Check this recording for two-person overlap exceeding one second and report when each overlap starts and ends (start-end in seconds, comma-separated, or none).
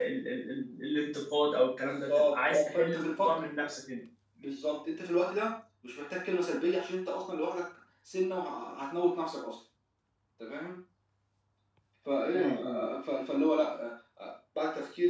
1.8-3.5